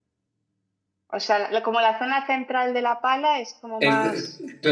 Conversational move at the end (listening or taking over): taking over